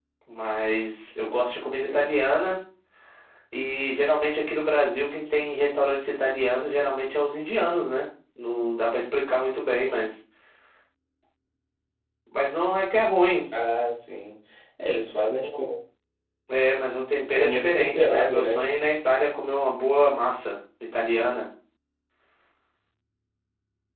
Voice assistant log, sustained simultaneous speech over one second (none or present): present